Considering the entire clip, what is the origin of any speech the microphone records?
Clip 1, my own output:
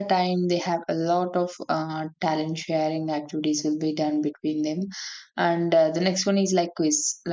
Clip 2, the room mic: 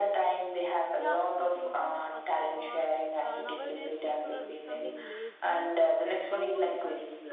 both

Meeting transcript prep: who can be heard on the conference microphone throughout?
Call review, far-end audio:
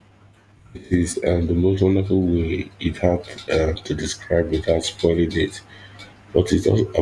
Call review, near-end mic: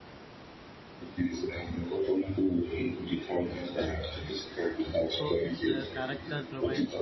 both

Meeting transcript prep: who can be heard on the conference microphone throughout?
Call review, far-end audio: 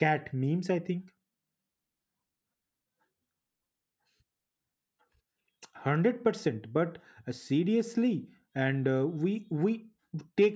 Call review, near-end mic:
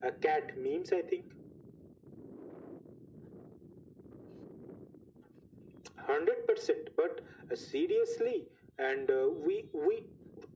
echo only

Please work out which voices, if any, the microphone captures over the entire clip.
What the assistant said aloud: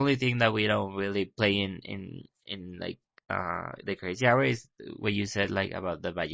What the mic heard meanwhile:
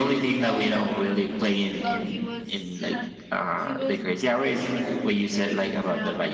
both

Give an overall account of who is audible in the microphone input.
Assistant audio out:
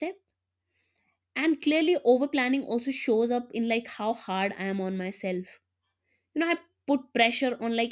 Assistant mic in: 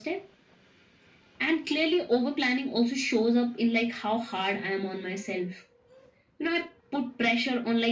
echo only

